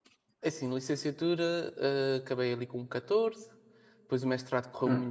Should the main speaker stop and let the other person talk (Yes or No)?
No